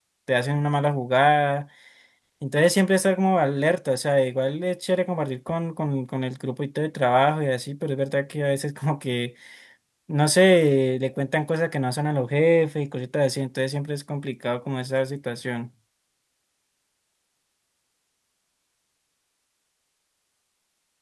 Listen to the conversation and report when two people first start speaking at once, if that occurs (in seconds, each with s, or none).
none